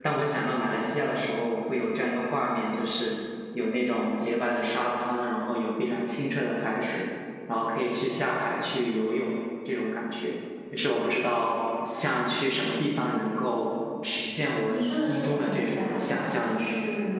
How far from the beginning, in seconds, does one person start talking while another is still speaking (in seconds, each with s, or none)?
14.7 s